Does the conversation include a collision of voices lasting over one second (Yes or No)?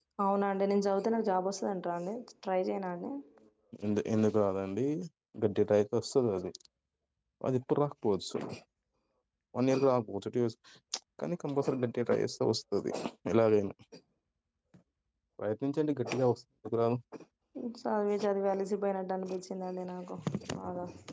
No